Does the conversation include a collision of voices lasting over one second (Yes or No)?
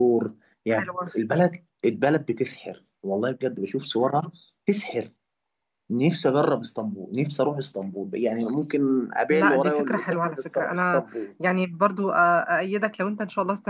Yes